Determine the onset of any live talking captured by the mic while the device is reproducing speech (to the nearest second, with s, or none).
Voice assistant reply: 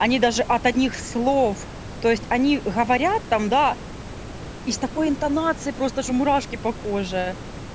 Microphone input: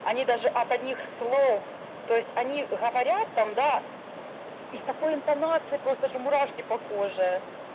none